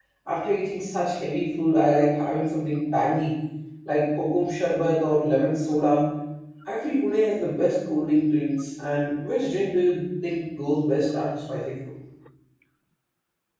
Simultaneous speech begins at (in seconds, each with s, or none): none